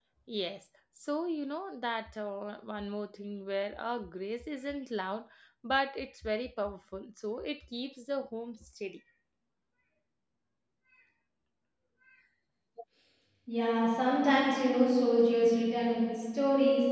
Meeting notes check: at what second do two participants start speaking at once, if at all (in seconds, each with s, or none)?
none